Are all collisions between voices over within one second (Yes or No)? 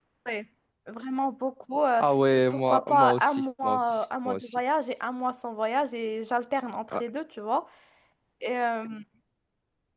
No